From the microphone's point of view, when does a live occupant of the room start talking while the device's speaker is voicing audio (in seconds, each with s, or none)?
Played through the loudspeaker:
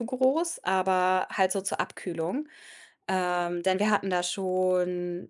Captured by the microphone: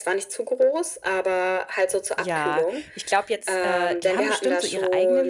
2.1 s